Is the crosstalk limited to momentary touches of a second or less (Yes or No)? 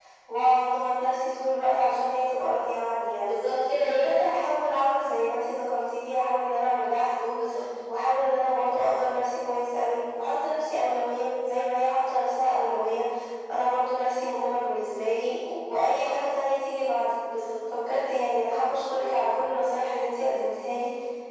Yes